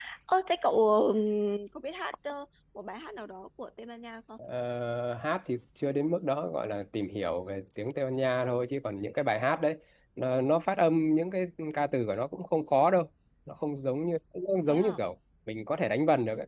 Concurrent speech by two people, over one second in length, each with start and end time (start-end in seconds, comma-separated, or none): none